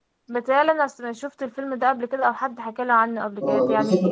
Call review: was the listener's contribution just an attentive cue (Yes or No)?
No